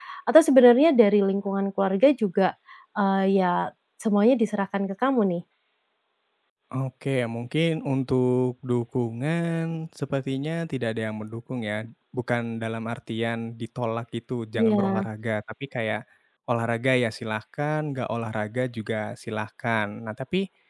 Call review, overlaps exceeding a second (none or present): none